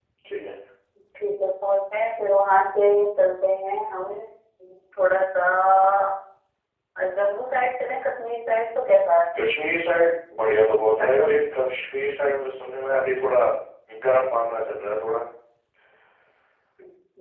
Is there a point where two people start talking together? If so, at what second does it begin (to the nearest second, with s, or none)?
none